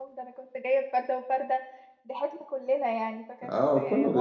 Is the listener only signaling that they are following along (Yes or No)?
No